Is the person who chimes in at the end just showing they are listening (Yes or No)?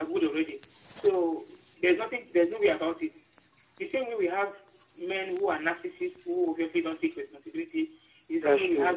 Yes